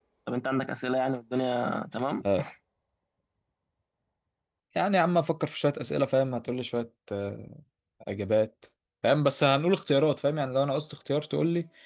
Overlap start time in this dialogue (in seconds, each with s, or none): none